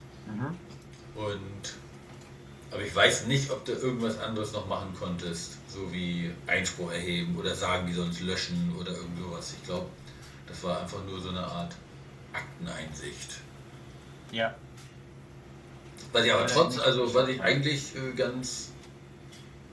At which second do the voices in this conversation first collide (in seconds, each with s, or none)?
16.4 s